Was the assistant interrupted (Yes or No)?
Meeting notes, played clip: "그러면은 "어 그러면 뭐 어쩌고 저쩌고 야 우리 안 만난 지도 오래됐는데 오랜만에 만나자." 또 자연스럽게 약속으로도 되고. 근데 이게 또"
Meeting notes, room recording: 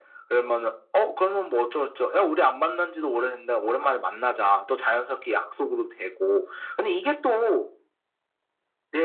No